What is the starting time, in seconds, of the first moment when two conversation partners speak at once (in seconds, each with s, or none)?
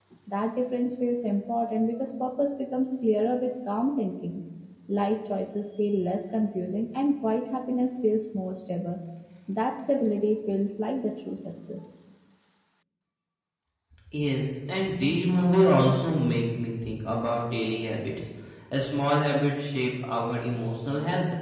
none